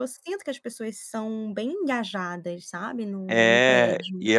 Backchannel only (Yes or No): No